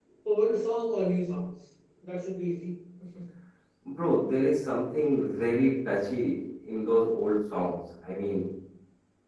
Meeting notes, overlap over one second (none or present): none